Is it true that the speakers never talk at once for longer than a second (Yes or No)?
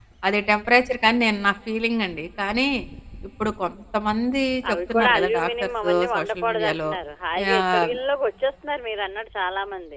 No